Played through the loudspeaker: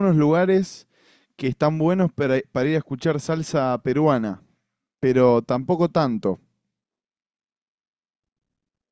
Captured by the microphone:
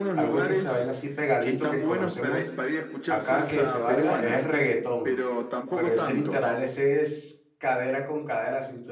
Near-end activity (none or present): present